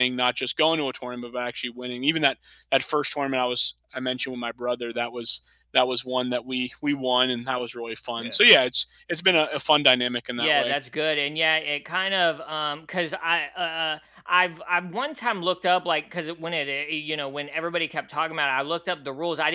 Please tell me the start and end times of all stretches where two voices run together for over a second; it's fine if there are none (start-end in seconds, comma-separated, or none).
none